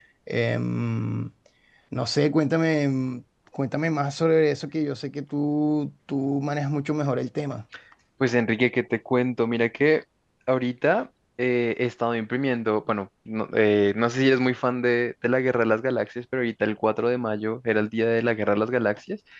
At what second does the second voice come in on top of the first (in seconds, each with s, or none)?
none